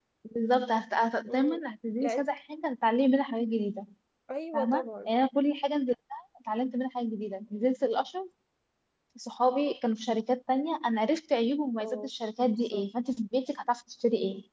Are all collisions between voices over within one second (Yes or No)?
Yes